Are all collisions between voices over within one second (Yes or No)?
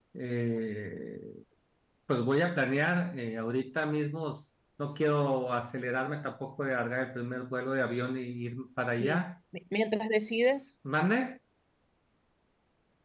Yes